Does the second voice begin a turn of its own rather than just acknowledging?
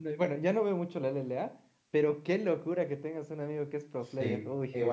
Yes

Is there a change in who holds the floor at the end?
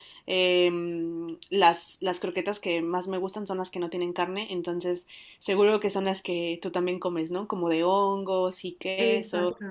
Yes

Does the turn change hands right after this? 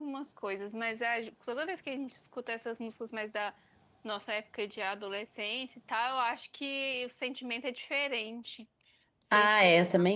Yes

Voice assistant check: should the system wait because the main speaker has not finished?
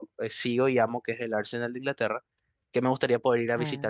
Yes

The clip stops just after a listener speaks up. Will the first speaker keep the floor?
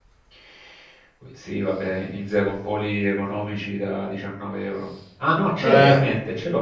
Yes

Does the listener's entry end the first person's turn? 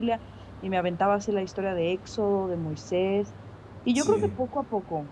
No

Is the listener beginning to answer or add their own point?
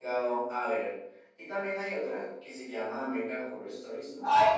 Yes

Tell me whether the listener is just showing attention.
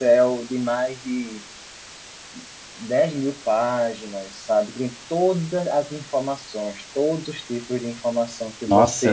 No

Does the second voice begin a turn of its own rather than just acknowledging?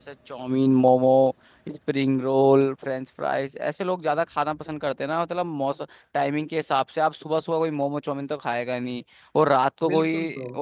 No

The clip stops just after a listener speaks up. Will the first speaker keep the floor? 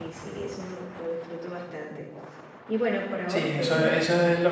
No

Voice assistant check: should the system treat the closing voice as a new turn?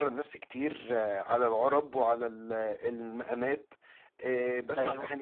No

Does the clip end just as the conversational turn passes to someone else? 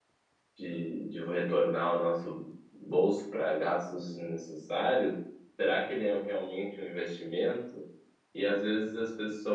No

